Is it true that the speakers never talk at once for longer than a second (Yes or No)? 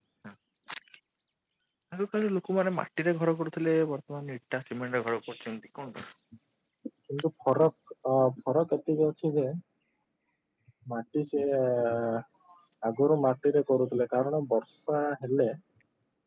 Yes